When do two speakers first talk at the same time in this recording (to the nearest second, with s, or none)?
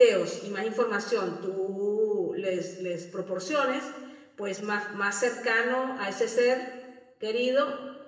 none